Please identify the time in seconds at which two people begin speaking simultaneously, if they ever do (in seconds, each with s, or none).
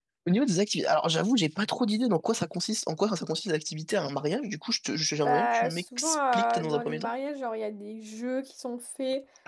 5.2 s